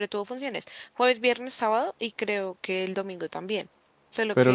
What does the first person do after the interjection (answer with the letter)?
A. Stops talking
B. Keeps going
A